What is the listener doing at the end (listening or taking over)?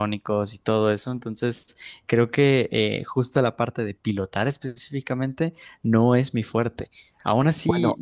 listening